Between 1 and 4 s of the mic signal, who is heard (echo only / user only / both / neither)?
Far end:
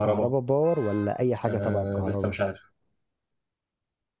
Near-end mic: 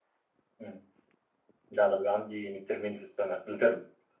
user only